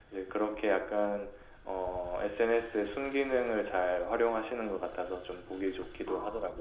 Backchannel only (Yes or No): No